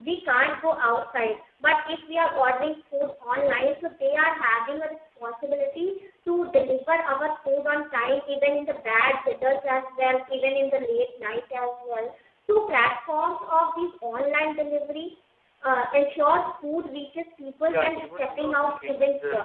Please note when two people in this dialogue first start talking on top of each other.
17.7 s

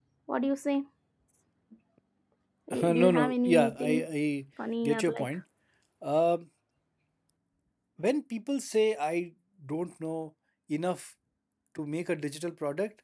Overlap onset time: 2.8 s

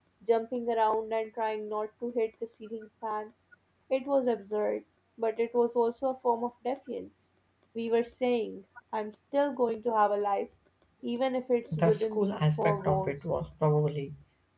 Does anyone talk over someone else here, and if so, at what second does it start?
11.8 s

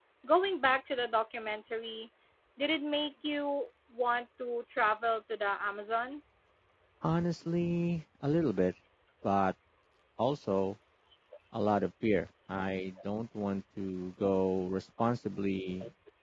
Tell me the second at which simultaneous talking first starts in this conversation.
none

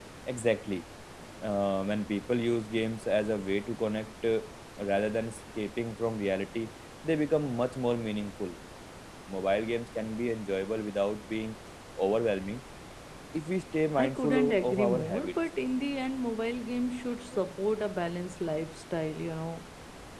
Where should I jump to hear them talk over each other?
14.0 s

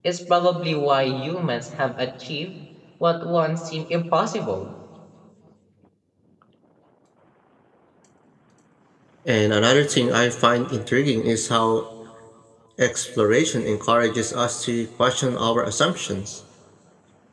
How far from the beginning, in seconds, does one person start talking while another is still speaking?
none

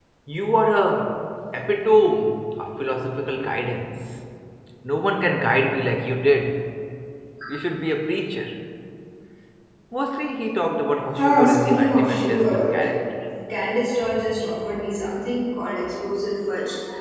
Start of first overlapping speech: 11.2 s

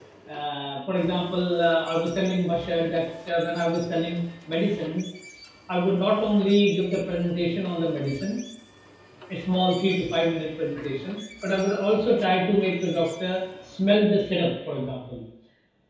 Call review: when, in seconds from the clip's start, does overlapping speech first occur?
none

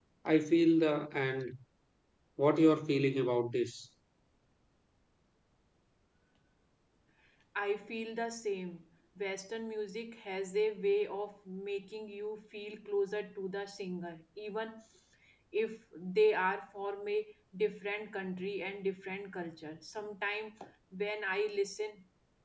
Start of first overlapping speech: none

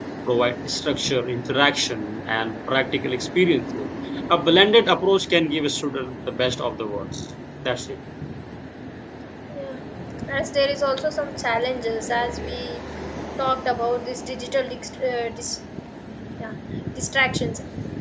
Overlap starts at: none

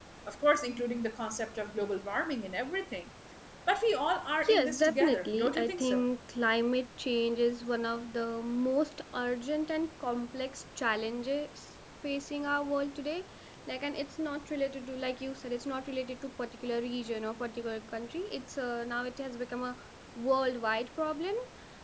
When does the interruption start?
4.5 s

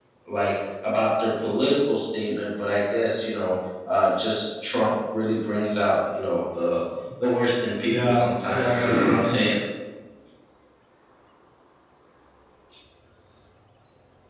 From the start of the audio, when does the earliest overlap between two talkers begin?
7.9 s

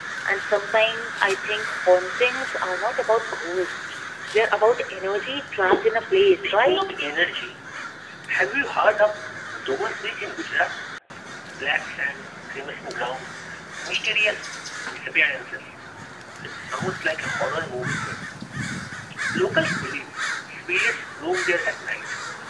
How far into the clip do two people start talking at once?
5.6 s

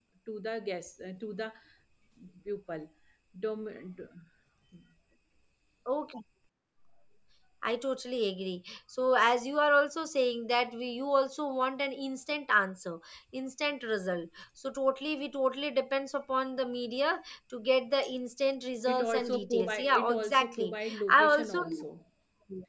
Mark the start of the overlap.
18.9 s

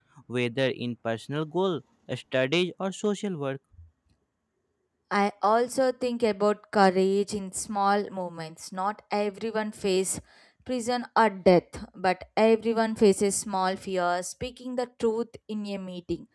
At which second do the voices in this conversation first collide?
none

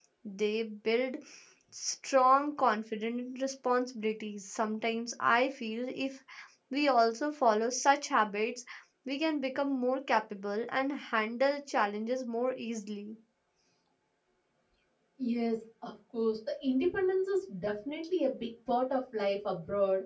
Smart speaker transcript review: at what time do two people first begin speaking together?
none

